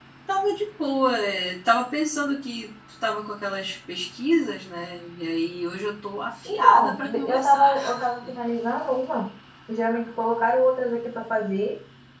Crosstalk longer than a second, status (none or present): present